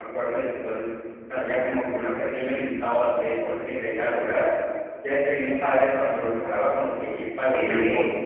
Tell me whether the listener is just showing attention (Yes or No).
Yes